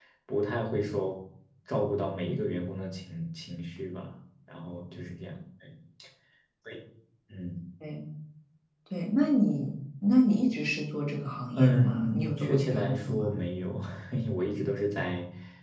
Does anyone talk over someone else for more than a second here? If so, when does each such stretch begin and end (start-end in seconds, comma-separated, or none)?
11.6-13.3